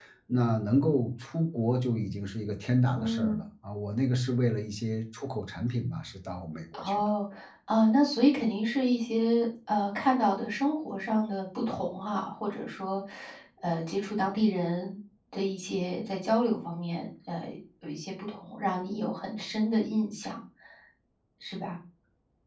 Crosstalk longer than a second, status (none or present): none